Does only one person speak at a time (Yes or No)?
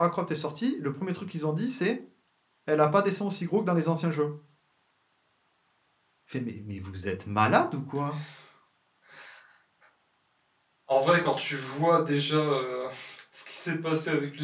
Yes